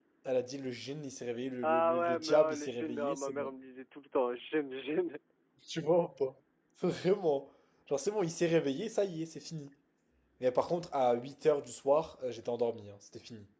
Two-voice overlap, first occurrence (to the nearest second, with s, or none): 2 s